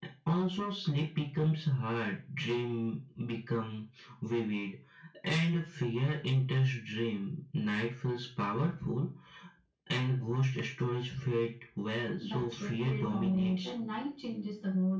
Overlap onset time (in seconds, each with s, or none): 12.2 s